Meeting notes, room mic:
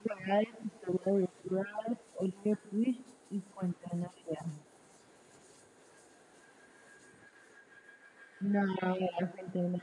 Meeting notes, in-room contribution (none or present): none